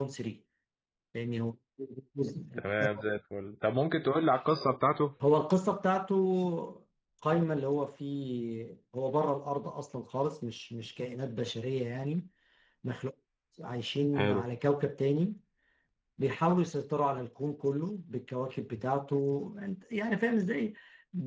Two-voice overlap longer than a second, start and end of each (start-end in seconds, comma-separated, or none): none